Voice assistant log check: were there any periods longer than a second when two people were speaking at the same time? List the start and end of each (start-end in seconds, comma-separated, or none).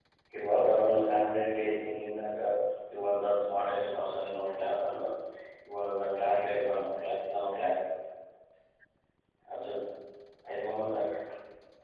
none